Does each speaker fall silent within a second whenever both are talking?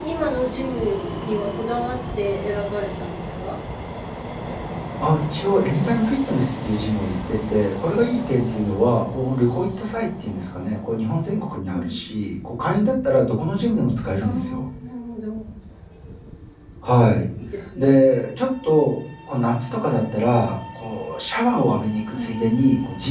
Yes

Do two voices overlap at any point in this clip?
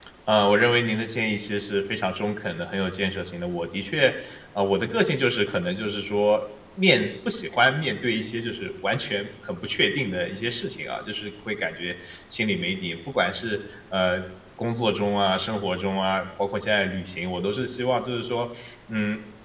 No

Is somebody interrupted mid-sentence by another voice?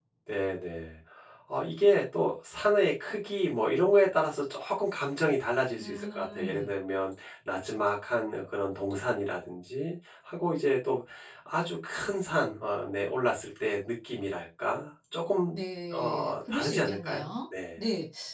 Yes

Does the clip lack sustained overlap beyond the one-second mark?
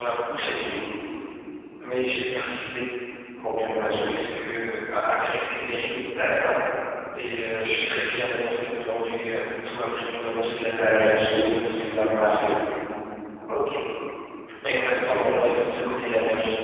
No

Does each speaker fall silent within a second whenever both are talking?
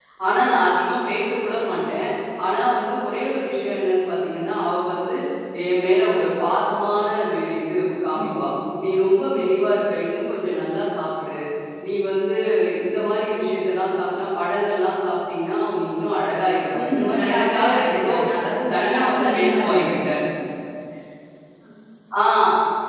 No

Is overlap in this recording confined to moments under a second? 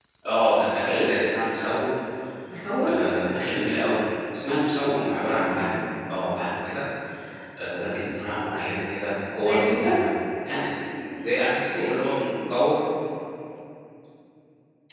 Yes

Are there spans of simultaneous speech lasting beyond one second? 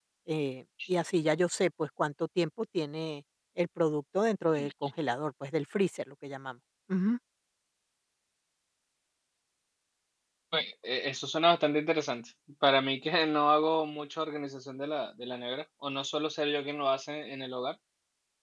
No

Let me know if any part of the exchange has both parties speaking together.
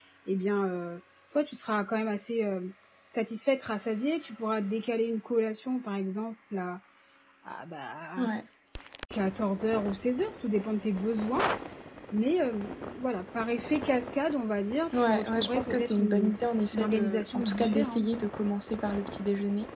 Yes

